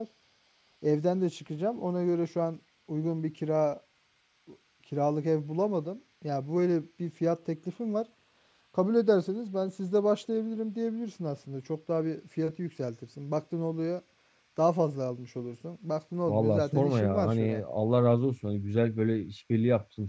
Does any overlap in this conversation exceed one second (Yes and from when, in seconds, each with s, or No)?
Yes, from 16.3 s